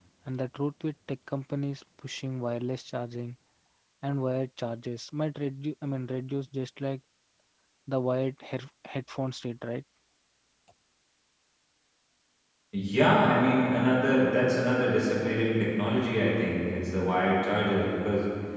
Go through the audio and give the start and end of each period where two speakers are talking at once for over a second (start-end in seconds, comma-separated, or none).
none